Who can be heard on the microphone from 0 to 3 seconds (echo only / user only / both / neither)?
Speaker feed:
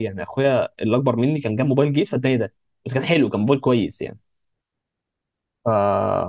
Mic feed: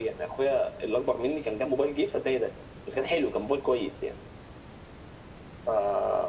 echo only